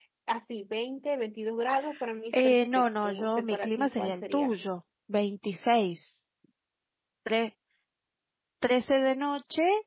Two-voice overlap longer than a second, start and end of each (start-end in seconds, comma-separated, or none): 2.4-4.5